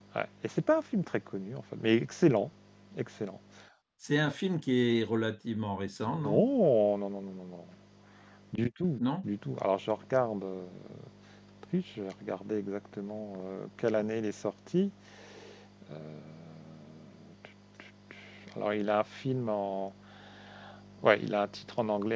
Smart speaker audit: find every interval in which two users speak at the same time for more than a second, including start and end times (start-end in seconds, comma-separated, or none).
none